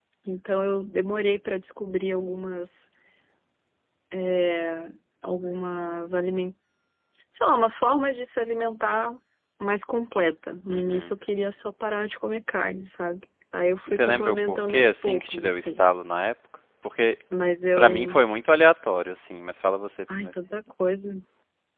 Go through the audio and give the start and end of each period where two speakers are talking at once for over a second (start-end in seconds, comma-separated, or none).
13.9-15.8